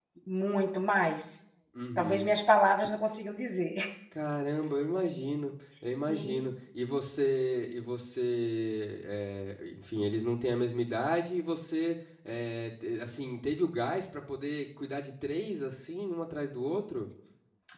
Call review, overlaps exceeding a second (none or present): none